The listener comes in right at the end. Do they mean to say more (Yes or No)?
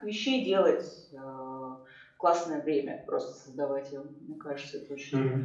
Yes